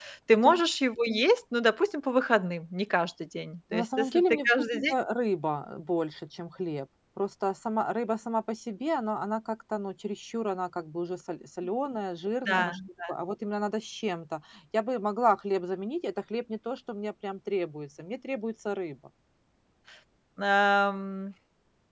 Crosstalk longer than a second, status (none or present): present